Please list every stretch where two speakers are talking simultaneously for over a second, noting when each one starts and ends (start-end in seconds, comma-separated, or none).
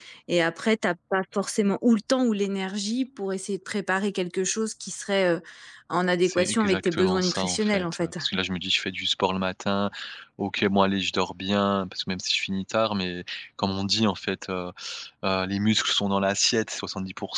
6.2-8.1